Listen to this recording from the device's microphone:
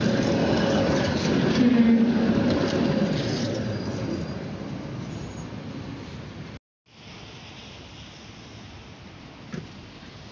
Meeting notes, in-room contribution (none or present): present